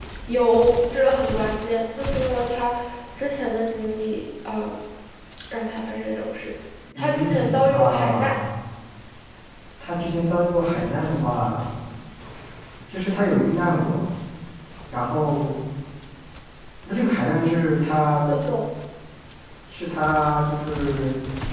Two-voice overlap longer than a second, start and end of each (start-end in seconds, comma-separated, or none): 7.0-8.3